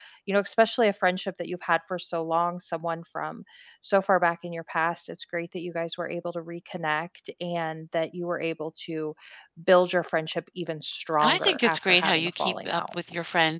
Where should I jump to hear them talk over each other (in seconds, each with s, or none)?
11.2 s